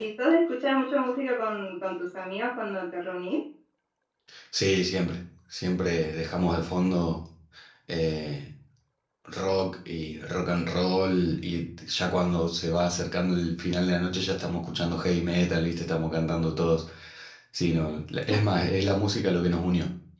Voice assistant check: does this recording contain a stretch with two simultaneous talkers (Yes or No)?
No